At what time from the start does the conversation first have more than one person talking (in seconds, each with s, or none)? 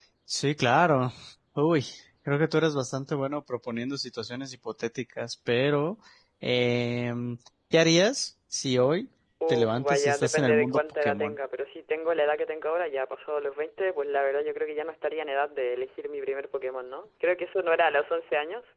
9.4 s